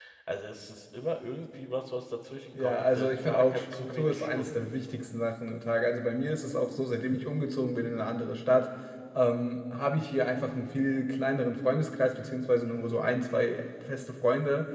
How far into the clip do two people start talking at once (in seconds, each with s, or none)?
2.5 s